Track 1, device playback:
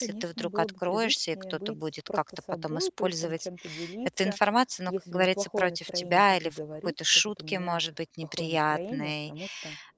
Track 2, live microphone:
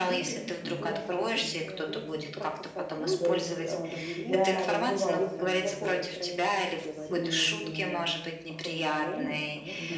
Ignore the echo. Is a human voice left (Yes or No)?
Yes